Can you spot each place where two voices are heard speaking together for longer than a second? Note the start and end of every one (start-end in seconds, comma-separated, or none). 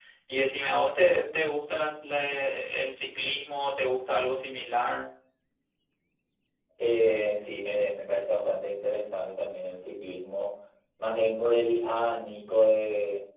none